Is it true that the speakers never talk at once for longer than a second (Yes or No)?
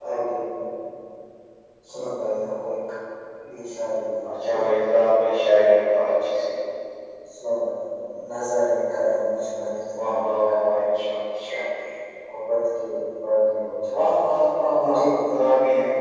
Yes